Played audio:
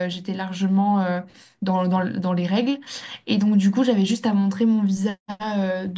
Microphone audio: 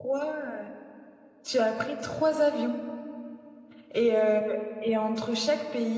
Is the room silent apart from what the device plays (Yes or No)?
No